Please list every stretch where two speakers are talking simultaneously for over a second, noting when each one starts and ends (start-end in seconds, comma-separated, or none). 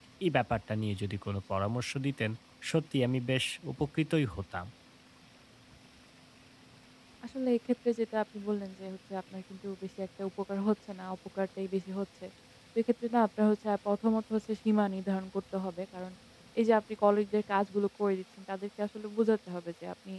none